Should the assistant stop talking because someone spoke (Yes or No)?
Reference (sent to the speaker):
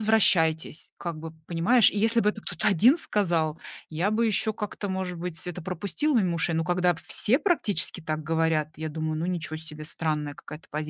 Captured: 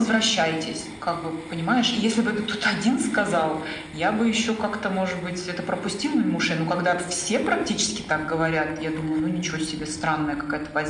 No